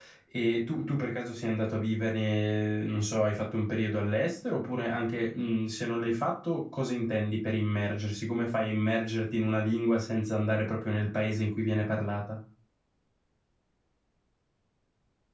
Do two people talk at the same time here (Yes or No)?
No